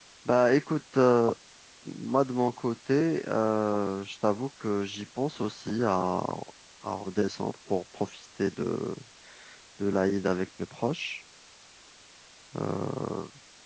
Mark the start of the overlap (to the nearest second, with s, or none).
none